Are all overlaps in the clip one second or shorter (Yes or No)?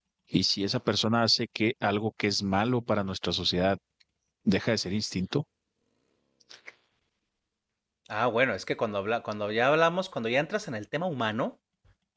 Yes